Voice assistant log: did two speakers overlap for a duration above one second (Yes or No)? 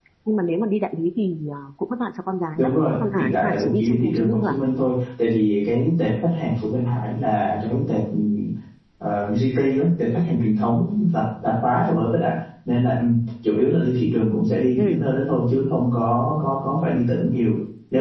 Yes